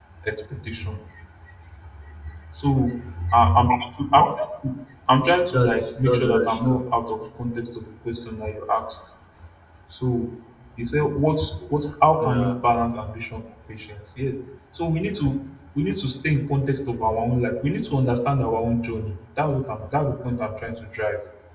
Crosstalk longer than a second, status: present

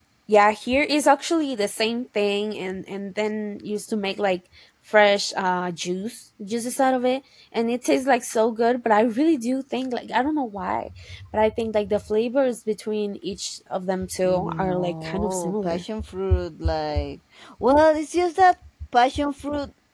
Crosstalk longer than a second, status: present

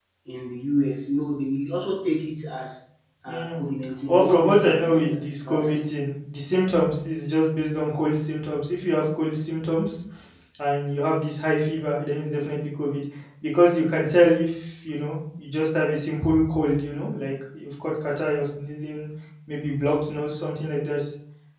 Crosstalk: present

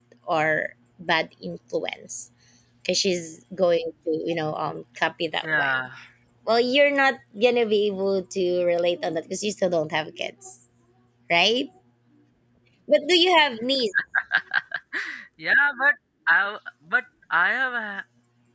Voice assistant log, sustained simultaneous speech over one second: none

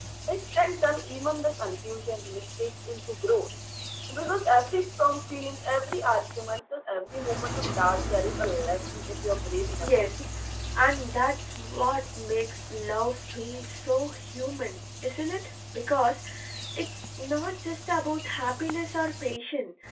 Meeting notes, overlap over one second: none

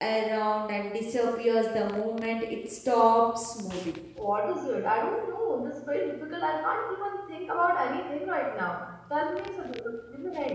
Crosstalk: none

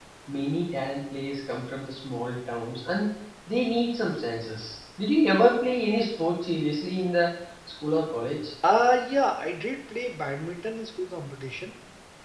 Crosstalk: none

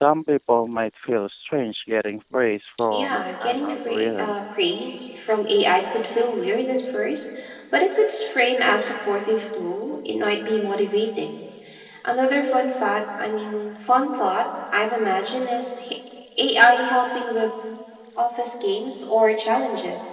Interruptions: present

